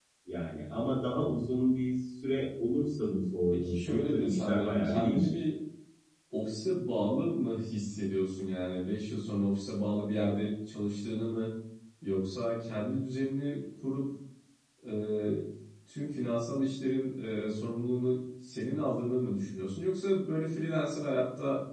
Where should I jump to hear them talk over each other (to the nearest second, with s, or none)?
4 s